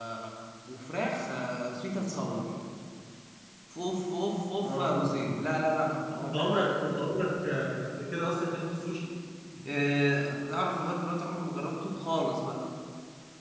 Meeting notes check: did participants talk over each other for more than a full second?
No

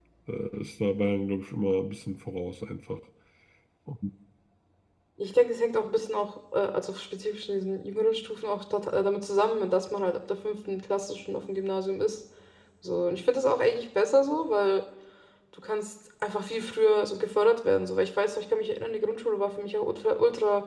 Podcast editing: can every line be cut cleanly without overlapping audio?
Yes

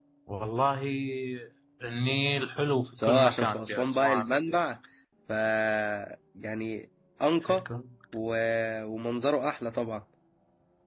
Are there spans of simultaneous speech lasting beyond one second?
Yes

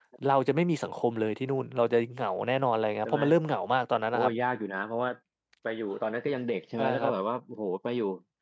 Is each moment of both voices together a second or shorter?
Yes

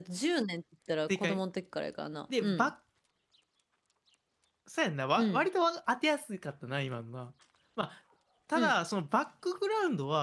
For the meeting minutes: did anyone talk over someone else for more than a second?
No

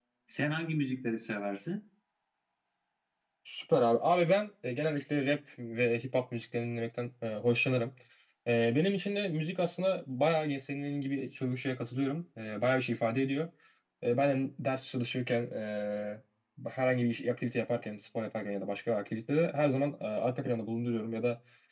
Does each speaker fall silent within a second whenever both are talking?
Yes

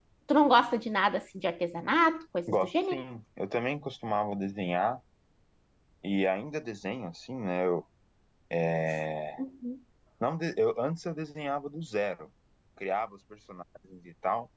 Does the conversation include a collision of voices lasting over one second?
No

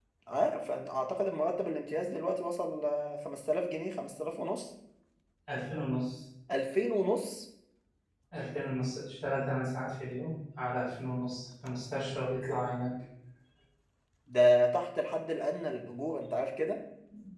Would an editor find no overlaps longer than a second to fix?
Yes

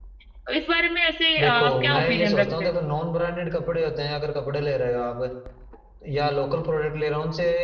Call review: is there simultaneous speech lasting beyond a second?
Yes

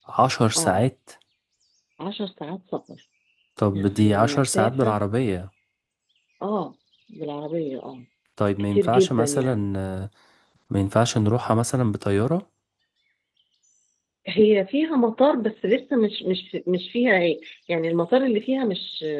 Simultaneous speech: Yes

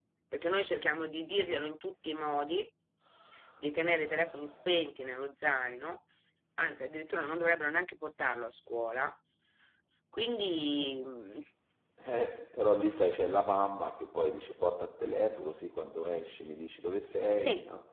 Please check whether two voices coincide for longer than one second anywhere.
No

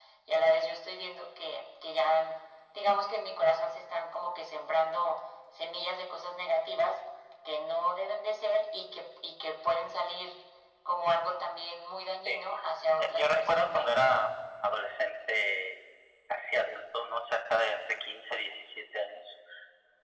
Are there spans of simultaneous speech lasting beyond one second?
Yes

